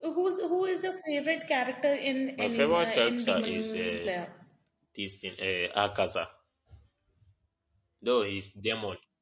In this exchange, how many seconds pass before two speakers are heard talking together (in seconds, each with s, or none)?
2.4 s